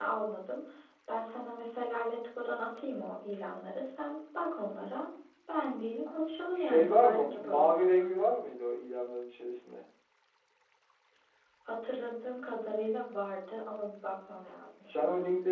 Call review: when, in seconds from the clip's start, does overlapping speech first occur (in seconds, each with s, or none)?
6.6 s